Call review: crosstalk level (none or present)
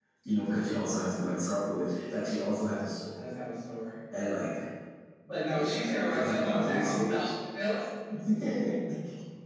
present